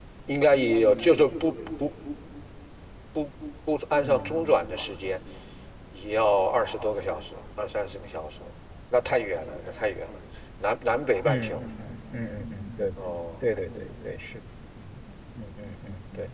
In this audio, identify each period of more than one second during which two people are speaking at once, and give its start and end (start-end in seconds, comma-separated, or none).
none